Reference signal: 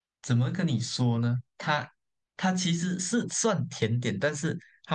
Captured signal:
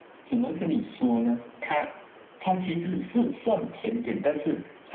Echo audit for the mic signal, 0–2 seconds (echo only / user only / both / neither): echo only